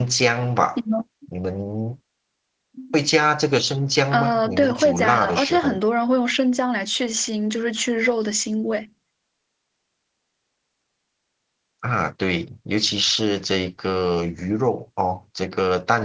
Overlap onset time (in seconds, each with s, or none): 4.1 s